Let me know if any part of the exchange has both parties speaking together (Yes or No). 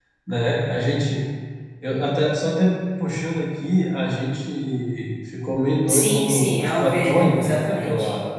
Yes